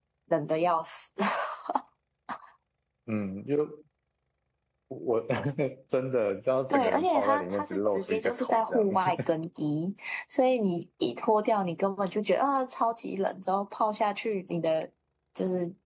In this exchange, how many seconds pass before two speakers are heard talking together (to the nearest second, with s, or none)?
7 s